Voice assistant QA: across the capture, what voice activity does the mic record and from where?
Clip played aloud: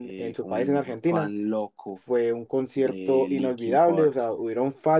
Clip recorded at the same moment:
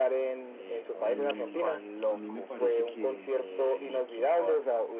both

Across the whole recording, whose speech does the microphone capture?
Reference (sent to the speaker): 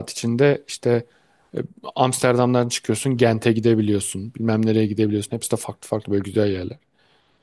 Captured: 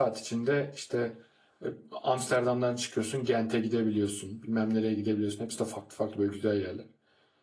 echo only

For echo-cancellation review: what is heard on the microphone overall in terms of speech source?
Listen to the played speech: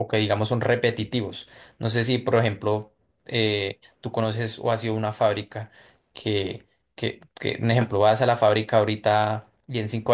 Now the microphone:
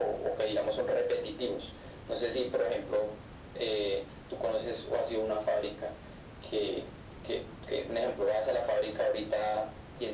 echo only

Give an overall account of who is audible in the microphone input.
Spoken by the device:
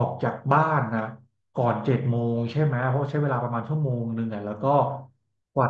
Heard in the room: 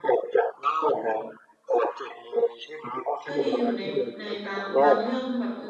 both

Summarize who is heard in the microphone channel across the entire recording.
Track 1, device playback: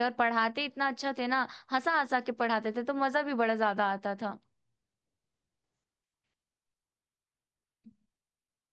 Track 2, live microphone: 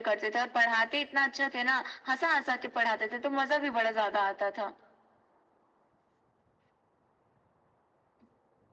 echo only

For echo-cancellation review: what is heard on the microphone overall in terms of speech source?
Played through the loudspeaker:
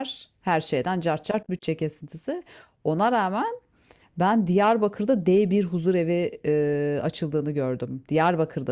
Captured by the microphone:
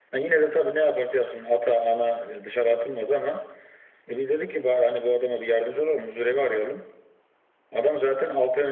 user only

